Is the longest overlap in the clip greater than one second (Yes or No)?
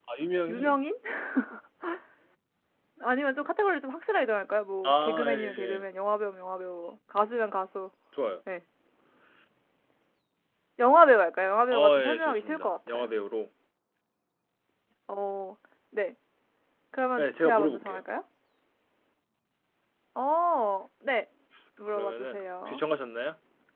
Yes